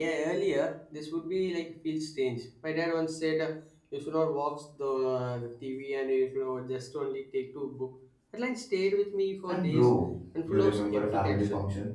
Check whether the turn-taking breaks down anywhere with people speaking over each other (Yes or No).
Yes